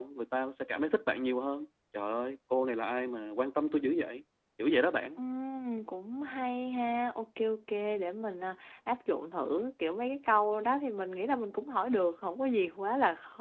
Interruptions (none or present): none